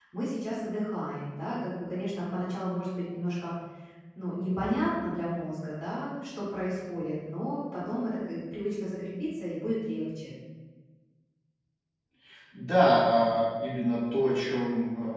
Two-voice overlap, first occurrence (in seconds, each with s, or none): none